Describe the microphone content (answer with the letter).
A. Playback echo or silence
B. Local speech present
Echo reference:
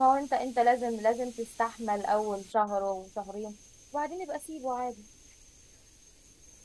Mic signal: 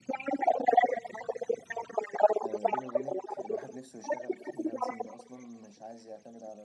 B